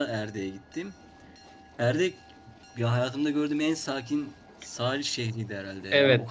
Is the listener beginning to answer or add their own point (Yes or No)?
No